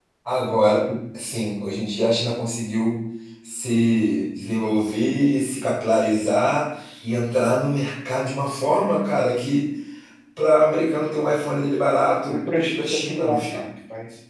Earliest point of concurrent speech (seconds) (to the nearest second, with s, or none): 12 s